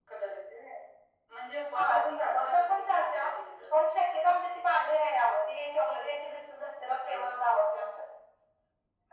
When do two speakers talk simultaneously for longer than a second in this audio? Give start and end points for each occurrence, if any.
1.7-3.2

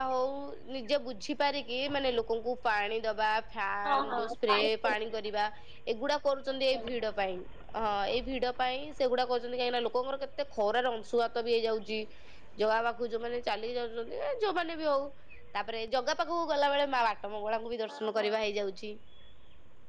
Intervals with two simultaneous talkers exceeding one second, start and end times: 3.9-5.1

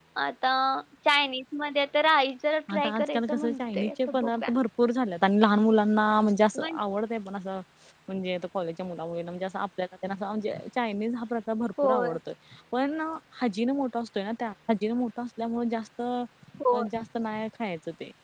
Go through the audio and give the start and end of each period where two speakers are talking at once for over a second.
2.8-4.4

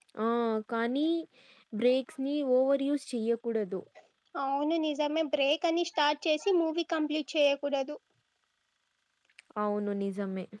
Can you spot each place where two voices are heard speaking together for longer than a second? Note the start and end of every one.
none

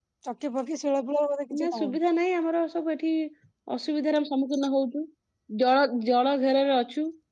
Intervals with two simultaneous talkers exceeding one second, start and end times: none

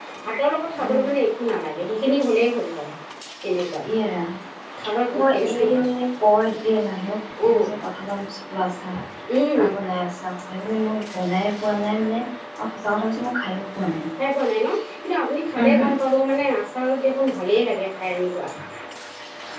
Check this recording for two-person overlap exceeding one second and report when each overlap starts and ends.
none

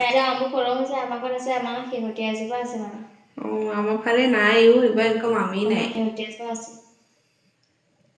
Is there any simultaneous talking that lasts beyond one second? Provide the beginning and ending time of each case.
none

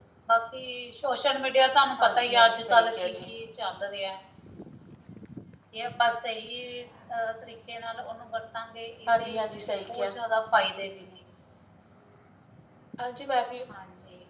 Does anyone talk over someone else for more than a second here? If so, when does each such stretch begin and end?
2.0-3.3

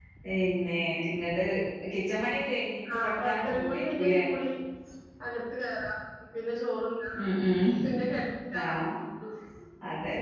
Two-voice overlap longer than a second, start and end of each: 3.0-4.2

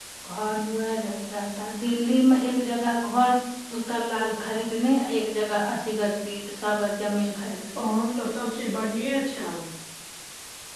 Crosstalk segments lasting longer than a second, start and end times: none

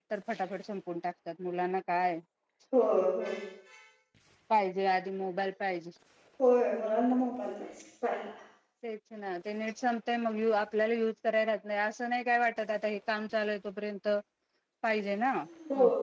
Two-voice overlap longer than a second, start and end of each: none

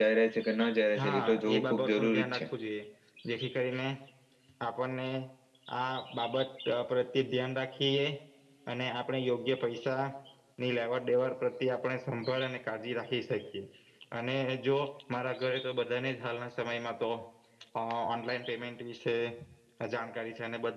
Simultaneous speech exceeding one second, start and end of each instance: 1.0-2.4

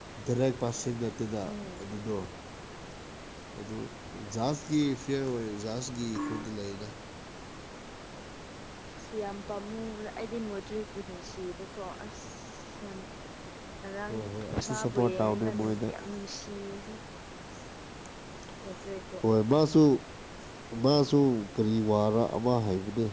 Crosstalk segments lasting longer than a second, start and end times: 14.7-15.9

